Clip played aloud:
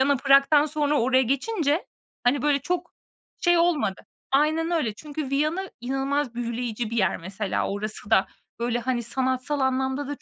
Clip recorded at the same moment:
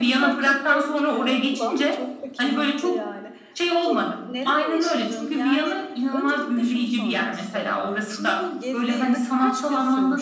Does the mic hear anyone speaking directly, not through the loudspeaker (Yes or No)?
Yes